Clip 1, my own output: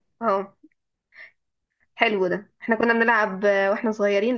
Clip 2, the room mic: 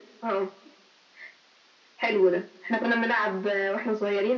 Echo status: present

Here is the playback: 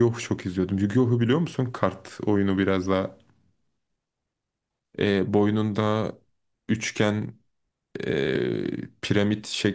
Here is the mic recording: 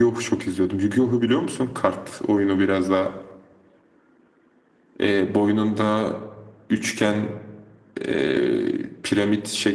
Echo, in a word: present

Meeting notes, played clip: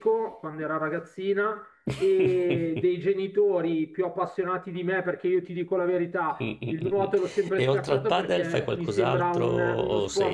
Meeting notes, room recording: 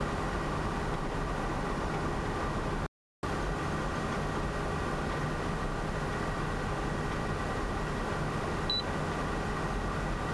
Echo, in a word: none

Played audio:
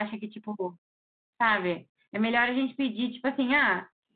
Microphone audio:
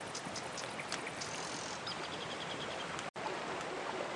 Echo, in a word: none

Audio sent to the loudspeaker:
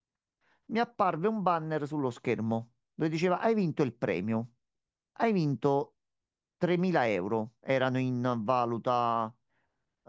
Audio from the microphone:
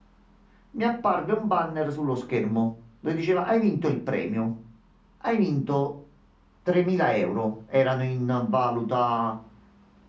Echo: present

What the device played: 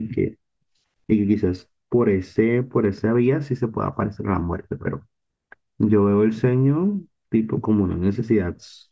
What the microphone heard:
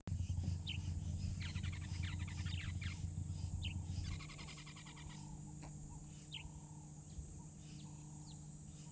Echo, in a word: none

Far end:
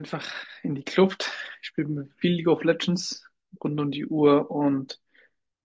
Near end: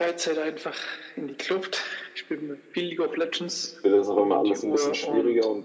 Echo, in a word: present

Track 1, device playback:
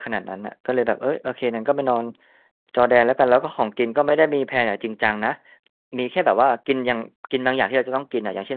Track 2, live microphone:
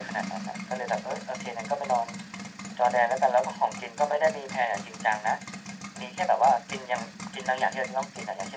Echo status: present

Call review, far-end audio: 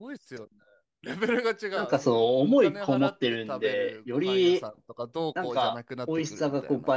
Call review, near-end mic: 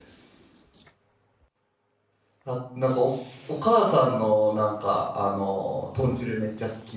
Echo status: none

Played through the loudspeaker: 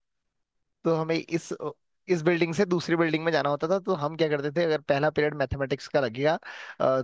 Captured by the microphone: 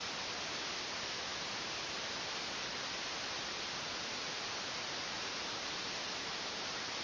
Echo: none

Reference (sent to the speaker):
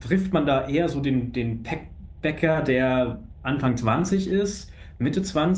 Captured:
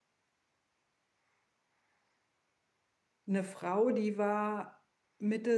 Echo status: none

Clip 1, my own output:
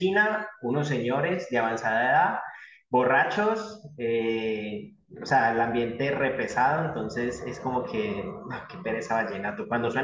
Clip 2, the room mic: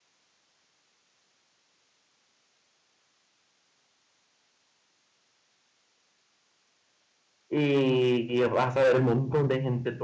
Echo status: none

